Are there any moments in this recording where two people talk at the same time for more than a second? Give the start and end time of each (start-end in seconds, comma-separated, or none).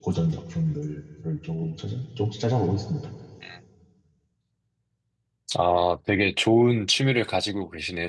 none